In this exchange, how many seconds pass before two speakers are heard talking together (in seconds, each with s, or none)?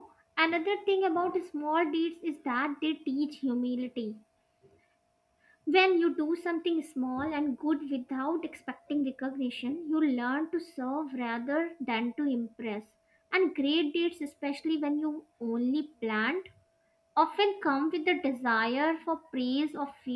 none